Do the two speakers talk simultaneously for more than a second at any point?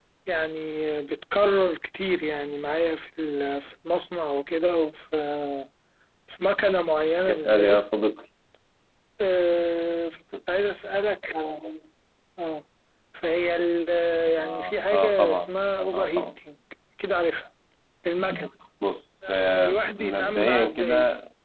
Yes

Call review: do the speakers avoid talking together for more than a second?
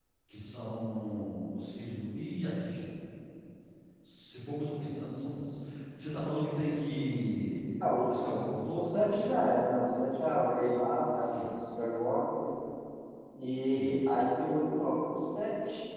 Yes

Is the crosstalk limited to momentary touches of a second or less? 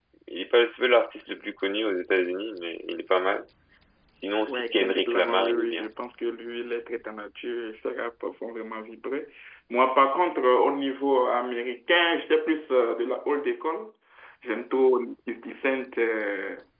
No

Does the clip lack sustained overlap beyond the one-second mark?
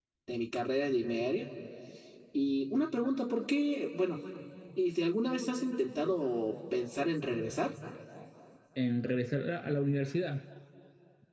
Yes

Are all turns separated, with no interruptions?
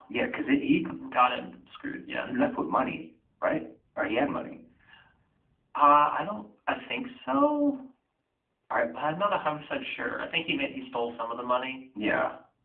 Yes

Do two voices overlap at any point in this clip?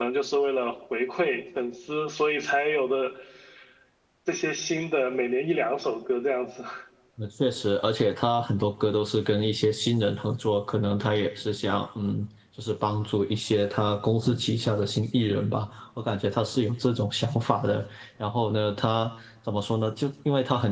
No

